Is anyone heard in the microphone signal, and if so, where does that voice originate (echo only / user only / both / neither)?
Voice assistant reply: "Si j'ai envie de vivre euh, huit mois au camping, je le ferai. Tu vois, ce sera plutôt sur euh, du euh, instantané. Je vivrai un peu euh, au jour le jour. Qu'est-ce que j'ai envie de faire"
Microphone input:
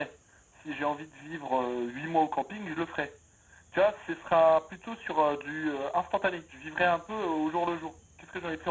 echo only